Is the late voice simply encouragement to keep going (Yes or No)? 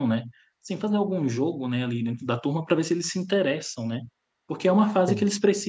Yes